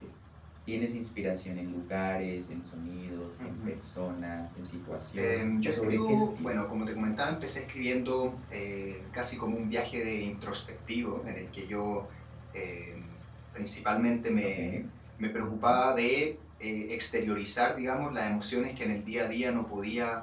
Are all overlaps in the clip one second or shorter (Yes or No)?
No